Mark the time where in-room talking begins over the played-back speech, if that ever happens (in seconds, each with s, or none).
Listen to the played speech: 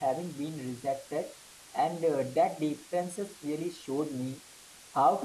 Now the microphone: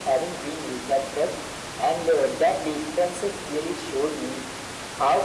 none